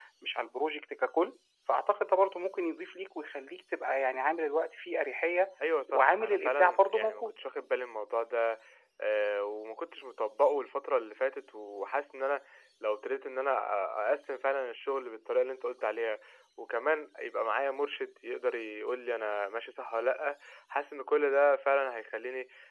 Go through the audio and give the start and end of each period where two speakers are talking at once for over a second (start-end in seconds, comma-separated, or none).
5.9-7.3